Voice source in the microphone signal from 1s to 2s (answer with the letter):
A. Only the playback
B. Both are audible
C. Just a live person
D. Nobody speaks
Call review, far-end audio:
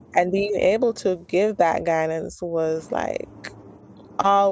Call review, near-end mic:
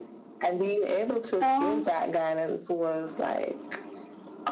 B